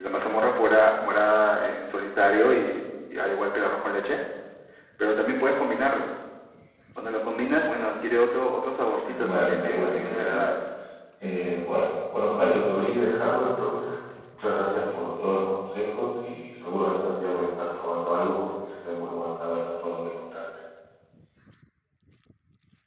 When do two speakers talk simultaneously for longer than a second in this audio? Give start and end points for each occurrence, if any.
9.0-10.4

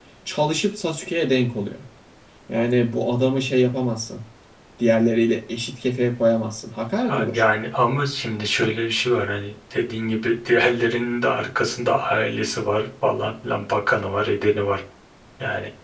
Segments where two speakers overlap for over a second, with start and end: none

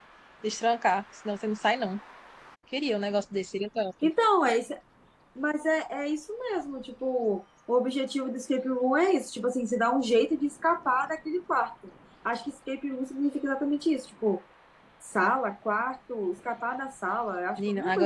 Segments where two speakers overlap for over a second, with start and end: none

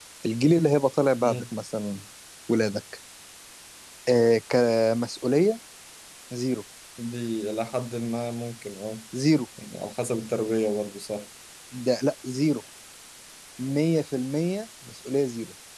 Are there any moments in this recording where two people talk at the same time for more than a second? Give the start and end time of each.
none

